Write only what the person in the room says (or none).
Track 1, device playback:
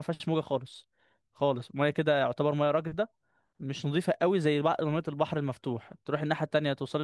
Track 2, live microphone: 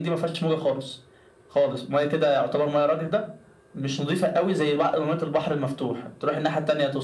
none